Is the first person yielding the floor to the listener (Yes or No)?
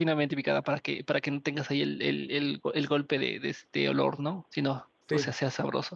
No